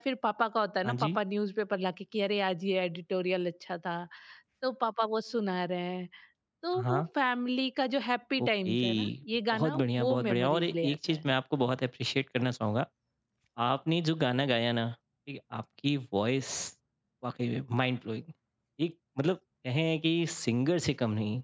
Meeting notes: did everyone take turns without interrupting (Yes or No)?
No